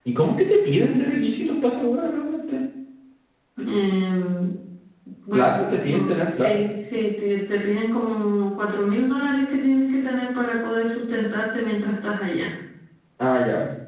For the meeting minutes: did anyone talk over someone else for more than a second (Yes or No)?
Yes